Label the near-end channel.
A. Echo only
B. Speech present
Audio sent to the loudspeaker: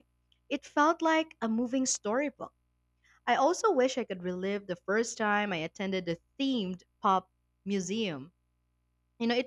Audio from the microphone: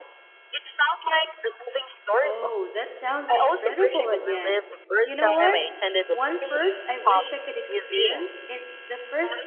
B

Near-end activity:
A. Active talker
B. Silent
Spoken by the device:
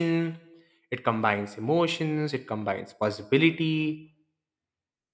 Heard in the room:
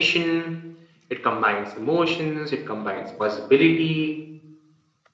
B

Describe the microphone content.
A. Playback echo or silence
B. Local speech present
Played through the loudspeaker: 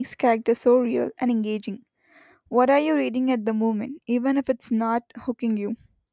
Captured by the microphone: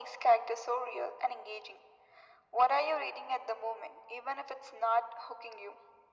A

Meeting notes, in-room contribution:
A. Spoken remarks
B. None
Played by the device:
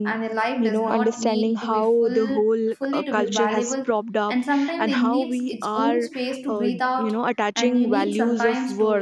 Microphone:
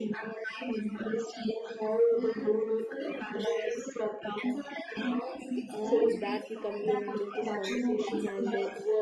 A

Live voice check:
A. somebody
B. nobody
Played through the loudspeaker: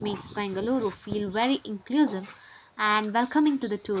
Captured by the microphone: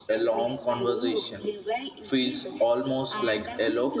A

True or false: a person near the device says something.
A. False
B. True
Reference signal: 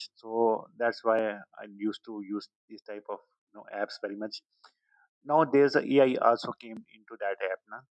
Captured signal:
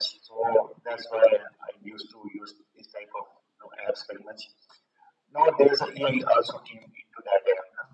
A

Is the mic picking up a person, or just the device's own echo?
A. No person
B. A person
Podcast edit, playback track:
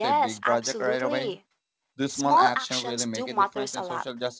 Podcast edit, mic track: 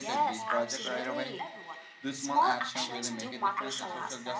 B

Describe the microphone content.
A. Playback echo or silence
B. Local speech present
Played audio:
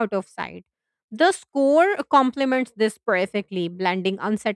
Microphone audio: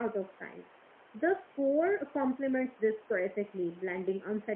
A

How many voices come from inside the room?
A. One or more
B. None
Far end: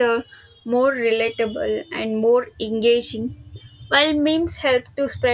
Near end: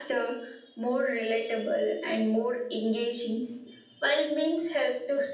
B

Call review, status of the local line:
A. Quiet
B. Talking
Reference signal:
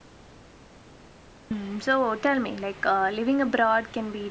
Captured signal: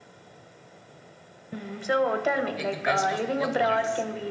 B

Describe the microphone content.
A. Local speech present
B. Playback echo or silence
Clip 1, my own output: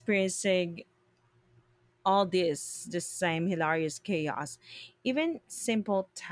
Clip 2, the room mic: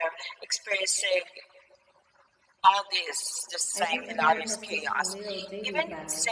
A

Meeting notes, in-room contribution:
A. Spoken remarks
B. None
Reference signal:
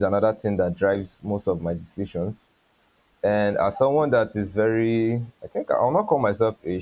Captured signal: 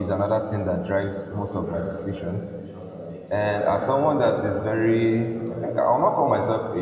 A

